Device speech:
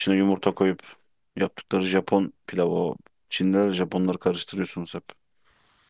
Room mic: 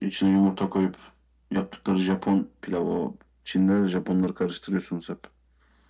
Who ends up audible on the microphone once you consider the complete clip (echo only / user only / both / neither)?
echo only